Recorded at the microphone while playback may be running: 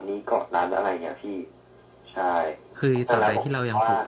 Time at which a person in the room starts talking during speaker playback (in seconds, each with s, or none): 2.8 s